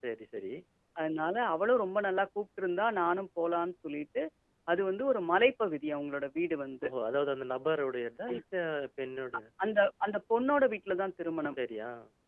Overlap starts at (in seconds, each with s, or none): none